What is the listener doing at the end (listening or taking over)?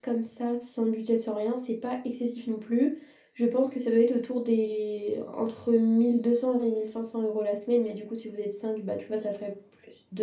listening